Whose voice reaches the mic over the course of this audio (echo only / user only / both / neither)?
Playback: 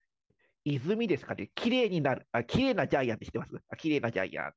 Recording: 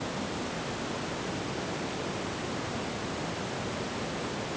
neither